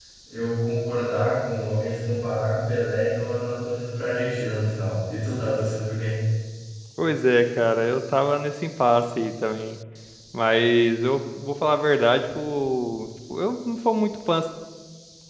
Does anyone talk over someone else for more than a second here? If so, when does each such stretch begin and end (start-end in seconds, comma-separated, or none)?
none